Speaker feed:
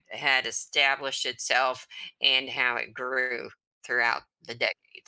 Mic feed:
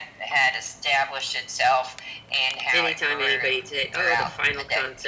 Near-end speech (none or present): present